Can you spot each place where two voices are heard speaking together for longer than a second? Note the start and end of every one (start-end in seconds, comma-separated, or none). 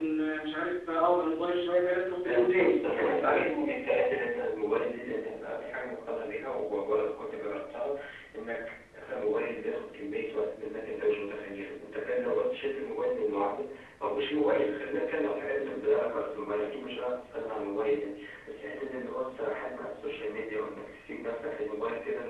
2.2-3.7